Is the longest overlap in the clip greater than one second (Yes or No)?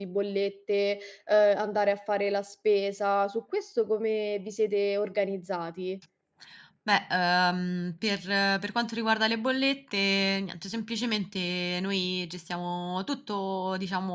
No